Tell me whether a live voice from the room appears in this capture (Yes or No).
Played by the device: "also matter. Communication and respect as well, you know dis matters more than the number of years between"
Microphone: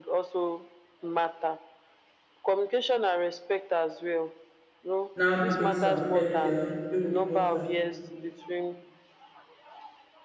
Yes